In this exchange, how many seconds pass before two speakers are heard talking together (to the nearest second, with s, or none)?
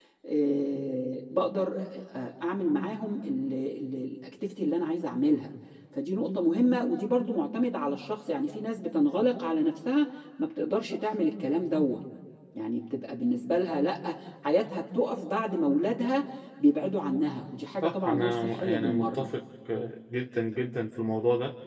18 s